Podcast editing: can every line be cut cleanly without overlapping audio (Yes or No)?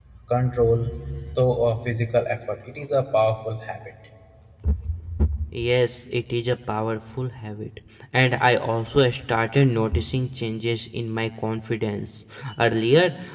Yes